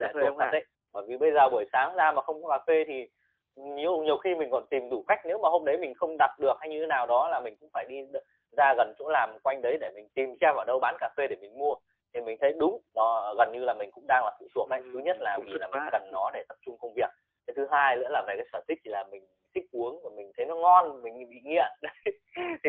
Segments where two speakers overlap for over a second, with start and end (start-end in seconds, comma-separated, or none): 14.7-15.9